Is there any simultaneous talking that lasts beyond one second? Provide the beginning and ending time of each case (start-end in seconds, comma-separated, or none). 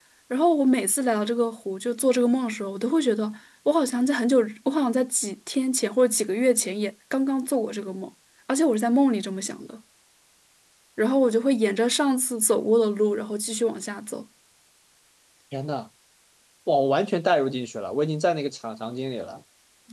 none